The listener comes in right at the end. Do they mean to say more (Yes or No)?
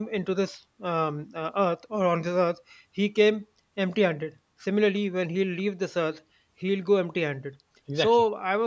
No